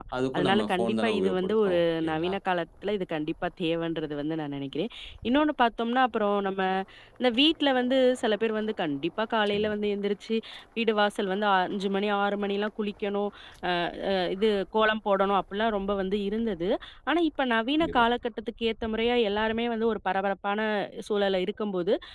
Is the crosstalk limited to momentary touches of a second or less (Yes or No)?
No